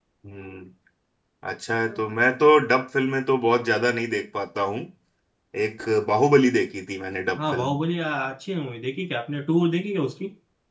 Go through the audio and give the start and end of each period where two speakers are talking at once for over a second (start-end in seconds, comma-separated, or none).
none